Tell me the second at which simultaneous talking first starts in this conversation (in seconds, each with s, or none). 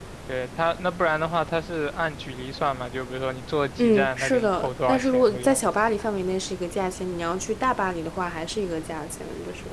3.8 s